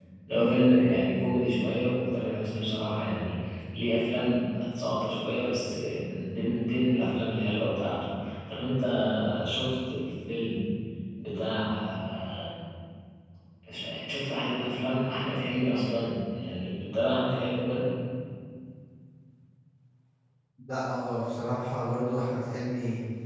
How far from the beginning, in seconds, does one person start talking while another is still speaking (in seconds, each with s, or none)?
none